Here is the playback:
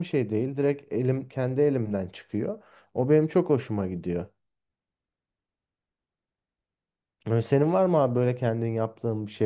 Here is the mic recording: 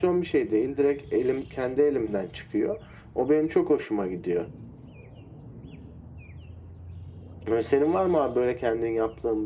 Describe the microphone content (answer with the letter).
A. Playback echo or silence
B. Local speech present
A